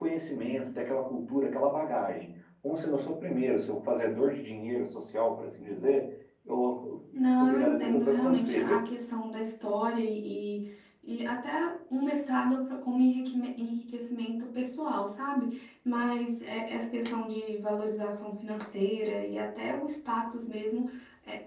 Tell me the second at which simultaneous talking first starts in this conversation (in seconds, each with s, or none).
7.4 s